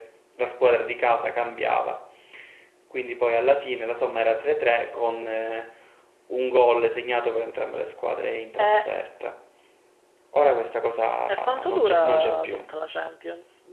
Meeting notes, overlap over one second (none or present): present